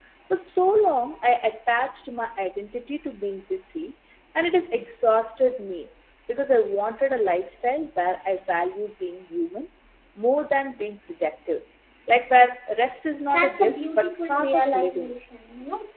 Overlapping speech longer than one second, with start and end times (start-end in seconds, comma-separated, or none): 13.3-15.1